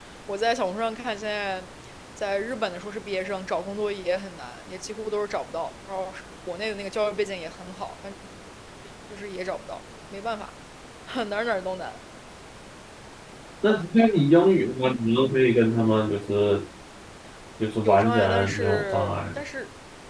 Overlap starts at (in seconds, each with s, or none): 17.8 s